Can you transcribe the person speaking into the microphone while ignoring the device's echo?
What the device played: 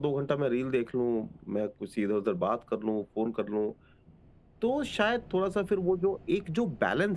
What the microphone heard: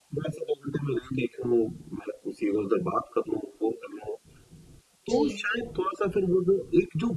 जी,

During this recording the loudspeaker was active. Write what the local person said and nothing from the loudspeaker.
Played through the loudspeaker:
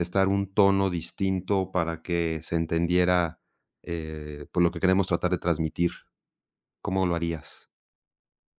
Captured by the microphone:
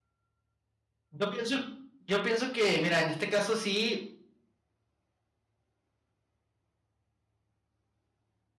Yo pienso, yo pienso que, mira, en este caso sí

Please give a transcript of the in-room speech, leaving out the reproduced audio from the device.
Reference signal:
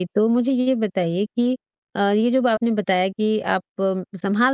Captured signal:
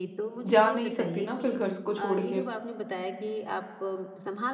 जा नहीं सकती ना फिर घर को छोड़ के।

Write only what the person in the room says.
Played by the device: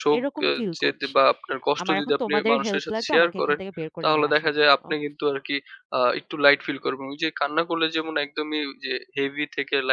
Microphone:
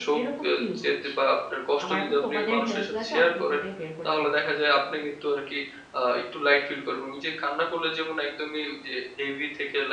none

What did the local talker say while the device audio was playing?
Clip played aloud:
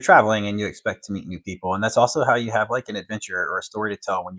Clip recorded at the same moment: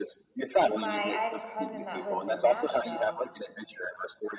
like, my I have a cousin that lives in Nashville,

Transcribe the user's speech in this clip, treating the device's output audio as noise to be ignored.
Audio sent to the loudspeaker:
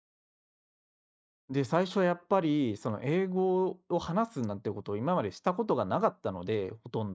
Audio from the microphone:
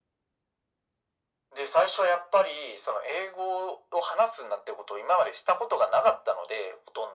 none

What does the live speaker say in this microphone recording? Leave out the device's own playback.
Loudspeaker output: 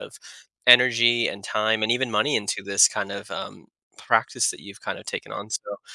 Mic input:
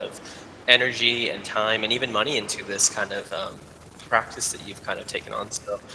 none

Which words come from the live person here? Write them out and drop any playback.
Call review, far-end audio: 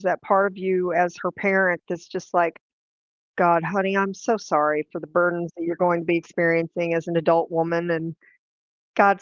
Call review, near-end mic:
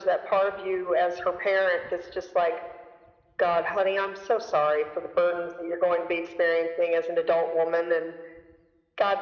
none

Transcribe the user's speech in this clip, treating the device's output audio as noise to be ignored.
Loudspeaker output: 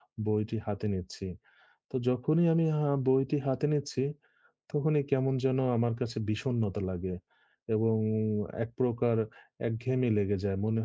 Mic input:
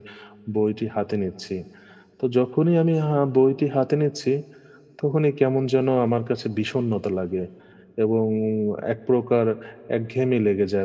none

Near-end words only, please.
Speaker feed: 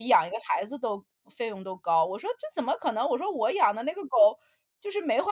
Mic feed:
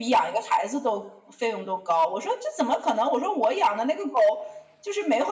none

